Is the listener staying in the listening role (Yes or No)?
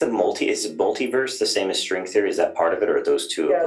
No